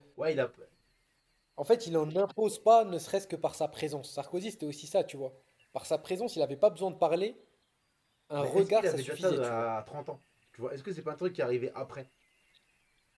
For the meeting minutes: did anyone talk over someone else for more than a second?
Yes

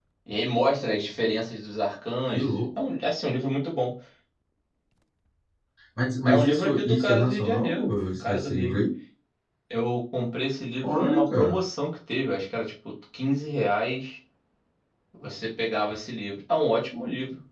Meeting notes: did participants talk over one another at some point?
Yes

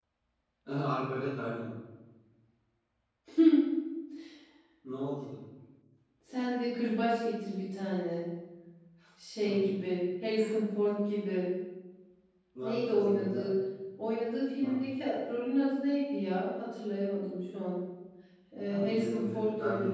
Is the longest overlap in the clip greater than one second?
Yes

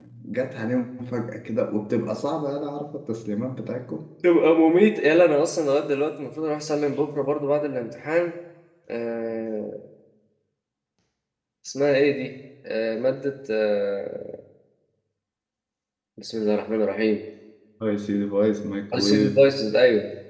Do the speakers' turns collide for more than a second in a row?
No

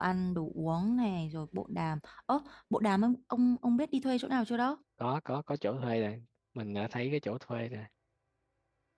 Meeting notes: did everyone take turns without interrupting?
Yes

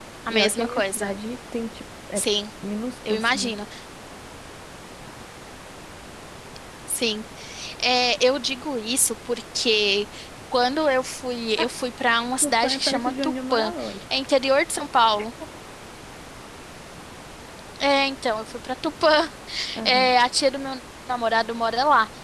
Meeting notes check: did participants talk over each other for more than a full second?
Yes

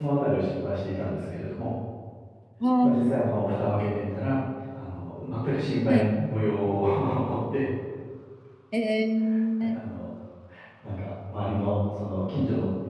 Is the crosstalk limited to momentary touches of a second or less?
Yes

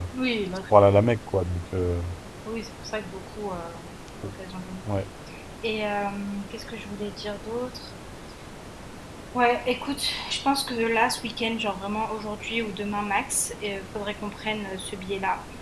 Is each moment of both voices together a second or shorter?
Yes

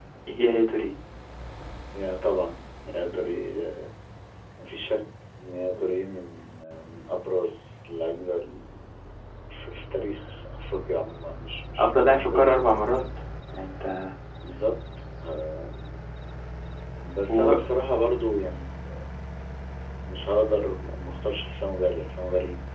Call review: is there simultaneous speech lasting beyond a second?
Yes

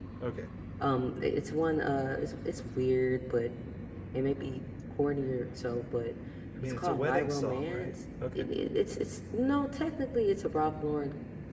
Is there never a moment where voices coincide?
No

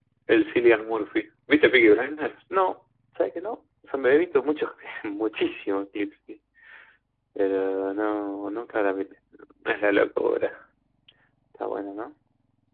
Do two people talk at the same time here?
No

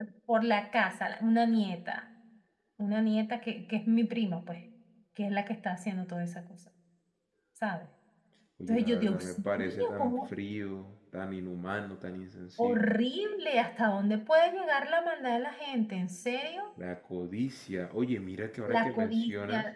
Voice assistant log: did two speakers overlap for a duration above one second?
Yes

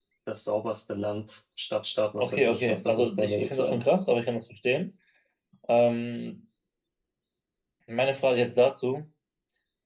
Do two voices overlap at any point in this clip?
Yes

